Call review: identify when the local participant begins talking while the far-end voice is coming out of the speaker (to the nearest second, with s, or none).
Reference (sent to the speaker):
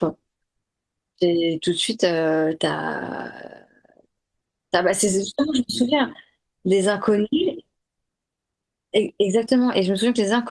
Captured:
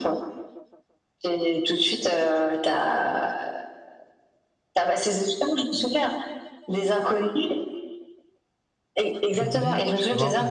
9 s